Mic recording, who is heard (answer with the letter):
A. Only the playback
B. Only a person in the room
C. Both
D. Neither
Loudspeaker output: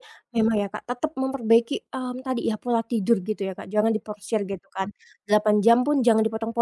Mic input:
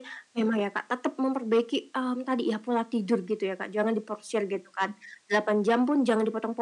A